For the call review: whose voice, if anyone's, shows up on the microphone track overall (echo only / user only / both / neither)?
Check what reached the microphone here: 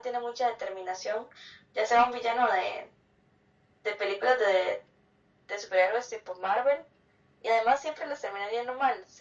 echo only